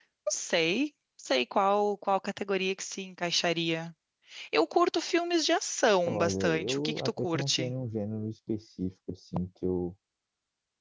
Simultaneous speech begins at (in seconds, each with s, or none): 6.0 s